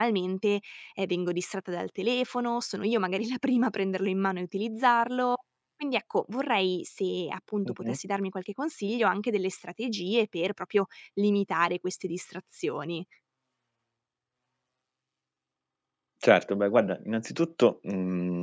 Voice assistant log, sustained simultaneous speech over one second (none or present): none